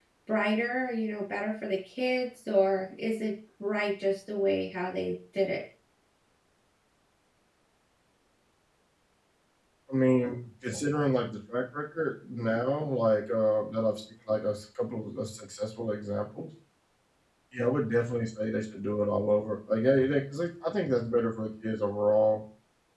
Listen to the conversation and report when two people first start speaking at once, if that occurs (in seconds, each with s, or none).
none